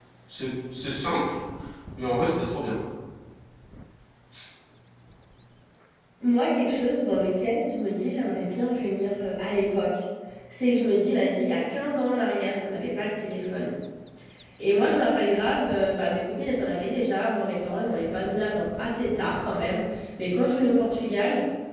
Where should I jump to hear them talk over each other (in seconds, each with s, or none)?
none